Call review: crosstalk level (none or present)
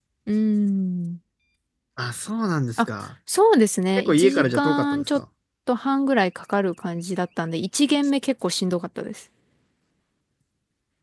present